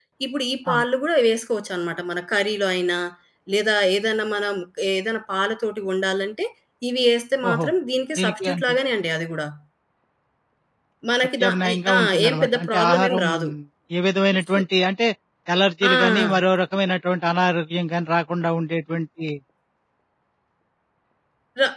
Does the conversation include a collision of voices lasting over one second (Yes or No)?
Yes